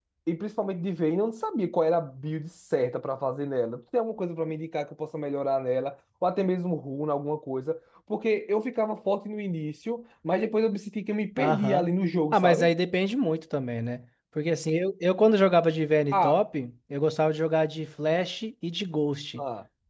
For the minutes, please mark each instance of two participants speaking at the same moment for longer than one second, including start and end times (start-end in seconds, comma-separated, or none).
none